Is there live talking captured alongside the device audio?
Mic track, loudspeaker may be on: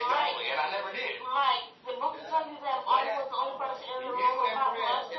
Yes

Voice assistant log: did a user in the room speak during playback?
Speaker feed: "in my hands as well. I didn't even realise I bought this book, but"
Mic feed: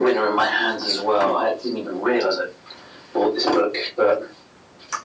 No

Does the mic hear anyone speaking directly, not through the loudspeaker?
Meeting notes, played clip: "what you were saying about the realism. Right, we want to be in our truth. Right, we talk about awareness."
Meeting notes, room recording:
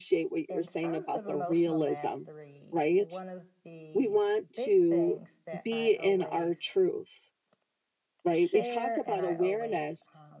Yes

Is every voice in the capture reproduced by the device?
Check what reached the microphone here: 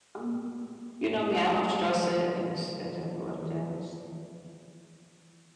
No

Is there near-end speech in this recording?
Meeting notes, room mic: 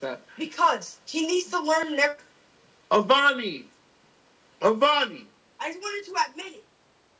No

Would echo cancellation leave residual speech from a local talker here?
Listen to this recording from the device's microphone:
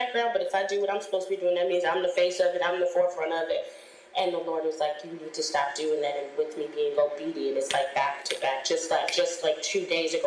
No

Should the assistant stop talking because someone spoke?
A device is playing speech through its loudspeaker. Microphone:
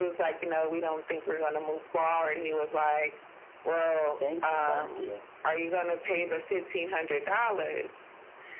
Yes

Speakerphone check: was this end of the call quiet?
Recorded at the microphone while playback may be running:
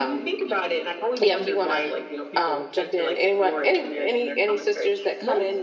No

